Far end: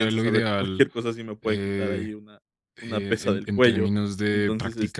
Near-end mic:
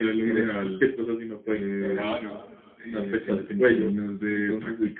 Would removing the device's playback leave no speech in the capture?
No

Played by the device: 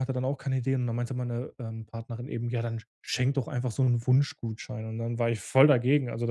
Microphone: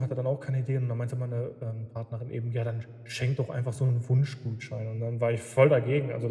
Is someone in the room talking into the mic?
No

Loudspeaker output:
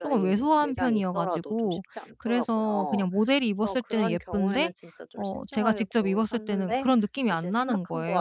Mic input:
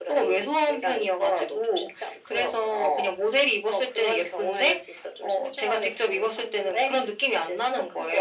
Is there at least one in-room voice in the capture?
No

